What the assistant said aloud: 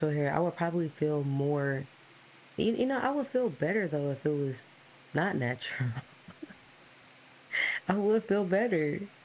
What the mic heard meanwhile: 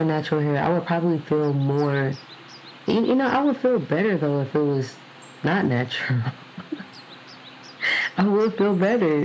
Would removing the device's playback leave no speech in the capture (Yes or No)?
Yes